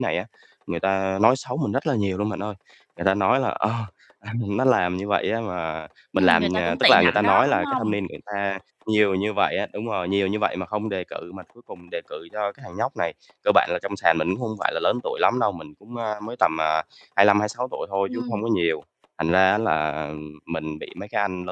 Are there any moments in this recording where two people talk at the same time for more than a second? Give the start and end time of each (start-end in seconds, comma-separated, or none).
6.1-8.0